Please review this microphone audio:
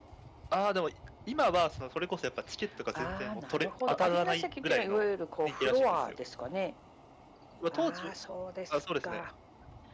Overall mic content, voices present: echo only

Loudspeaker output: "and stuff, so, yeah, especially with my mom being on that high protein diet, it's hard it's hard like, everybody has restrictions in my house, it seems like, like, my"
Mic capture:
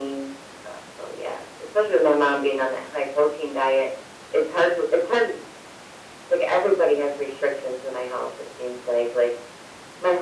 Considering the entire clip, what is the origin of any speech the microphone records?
echo only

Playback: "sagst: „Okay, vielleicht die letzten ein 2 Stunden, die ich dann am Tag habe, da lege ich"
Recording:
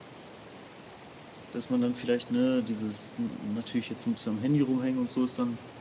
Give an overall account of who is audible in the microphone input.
user only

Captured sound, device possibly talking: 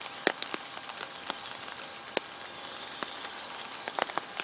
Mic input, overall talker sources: neither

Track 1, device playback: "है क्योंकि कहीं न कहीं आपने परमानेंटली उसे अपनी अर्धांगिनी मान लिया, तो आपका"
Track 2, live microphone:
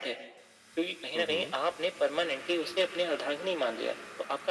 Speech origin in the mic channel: both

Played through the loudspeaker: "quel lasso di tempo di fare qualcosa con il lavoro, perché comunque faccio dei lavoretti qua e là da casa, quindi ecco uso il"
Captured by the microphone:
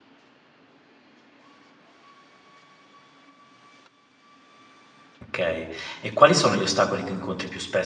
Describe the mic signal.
user only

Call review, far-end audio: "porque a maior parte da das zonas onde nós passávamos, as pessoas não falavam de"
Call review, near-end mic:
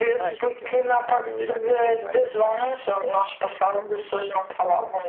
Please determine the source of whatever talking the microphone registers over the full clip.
both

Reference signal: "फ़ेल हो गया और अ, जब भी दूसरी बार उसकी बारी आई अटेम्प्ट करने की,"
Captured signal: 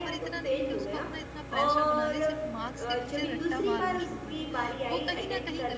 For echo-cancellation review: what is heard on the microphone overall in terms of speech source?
both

